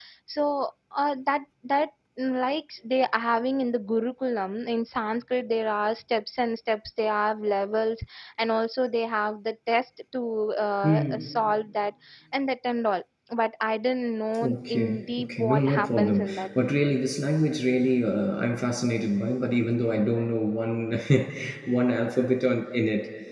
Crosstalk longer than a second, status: present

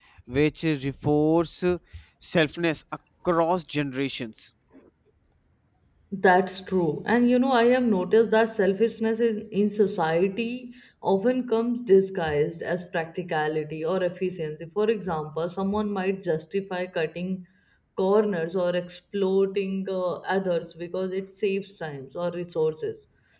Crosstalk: none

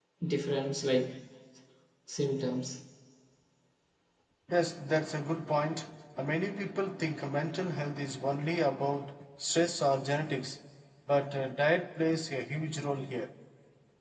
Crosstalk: none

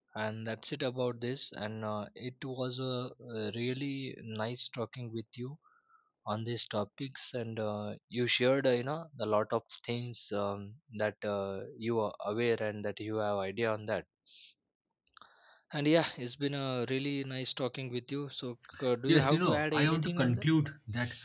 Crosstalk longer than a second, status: present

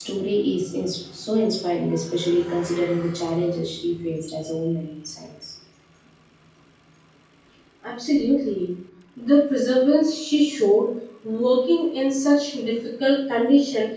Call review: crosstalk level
none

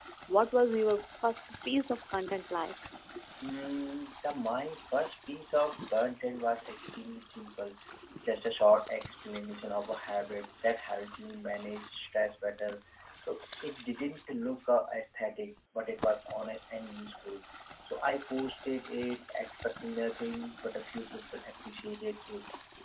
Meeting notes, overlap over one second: none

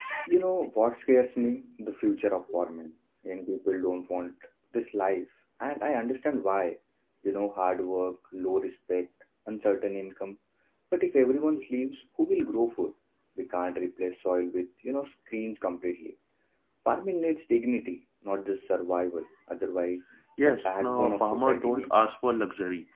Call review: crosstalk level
present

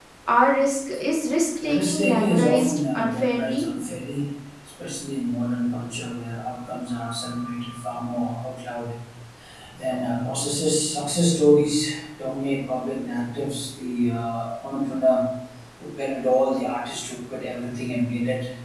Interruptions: present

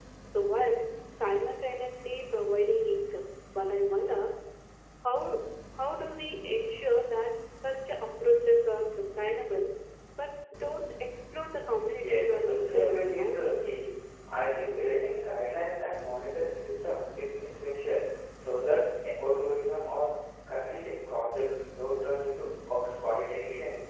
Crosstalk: present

